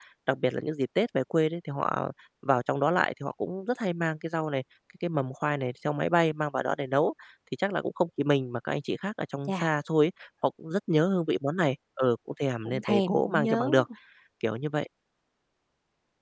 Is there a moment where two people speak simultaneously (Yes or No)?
Yes